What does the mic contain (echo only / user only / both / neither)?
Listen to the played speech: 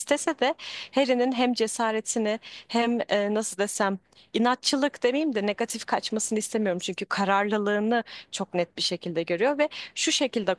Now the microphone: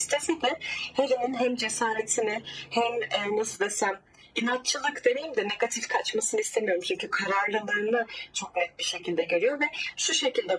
echo only